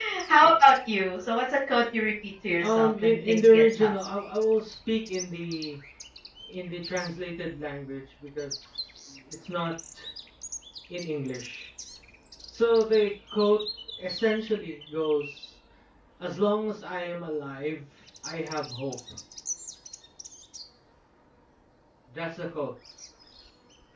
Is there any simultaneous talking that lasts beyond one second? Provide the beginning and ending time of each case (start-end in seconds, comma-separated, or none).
2.6-3.9